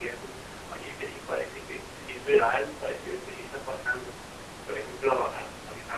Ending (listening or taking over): listening